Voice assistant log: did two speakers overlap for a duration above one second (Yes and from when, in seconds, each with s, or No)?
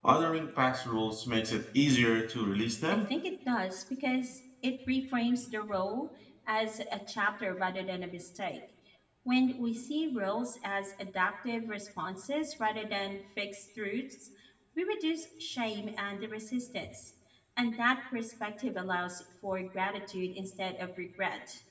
No